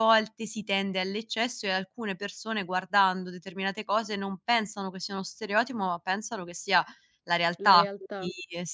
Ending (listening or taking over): listening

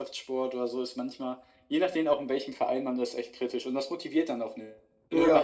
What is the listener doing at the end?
listening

